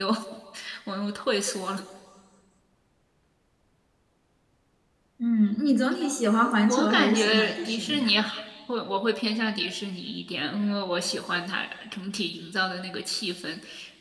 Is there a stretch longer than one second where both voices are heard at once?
Yes, from 6.7 s

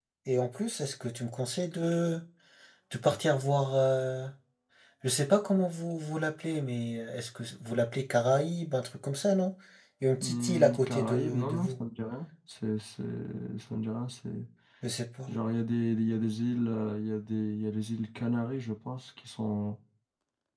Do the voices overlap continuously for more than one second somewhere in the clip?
Yes, from 10.2 s

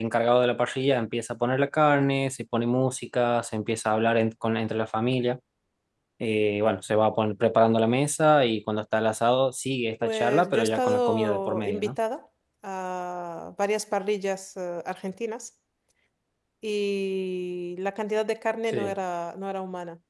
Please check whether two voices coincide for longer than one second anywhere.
Yes, from 10.0 s

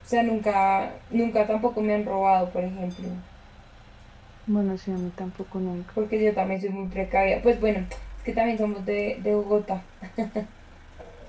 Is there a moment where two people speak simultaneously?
No

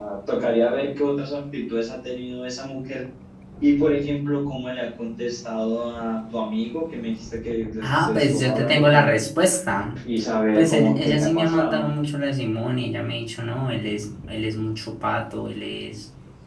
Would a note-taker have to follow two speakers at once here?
Yes, from 7.8 s

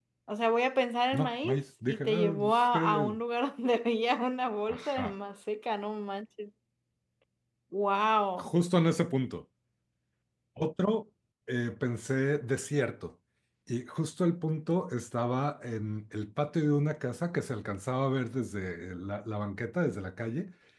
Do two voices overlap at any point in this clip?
Yes, from 1.1 s

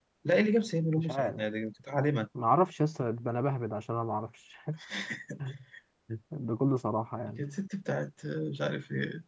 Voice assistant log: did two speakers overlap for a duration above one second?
No

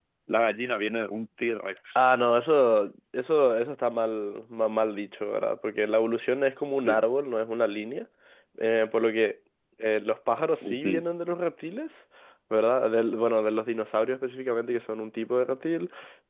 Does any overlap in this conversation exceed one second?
No

